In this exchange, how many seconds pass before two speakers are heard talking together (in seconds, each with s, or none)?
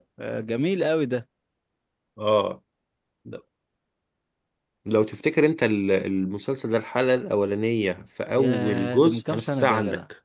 8.4 s